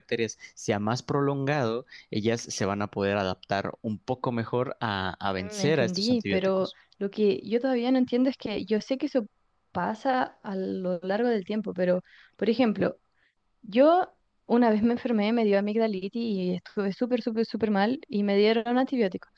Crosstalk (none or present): present